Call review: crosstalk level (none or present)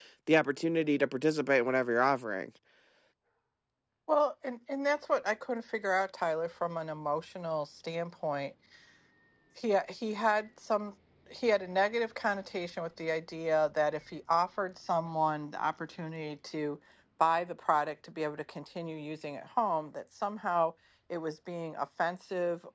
none